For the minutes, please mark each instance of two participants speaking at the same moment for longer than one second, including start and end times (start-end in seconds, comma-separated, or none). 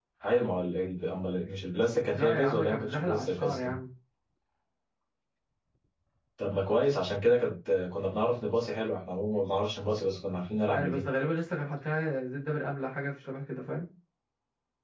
2.1-3.7